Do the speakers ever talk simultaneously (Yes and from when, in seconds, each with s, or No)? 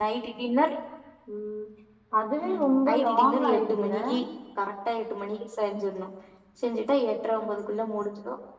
Yes, from 2.4 s